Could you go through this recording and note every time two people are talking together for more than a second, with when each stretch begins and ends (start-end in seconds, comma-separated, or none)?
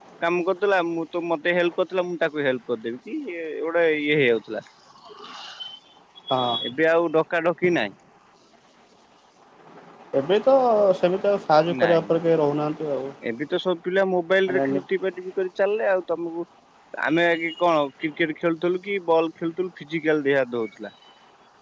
none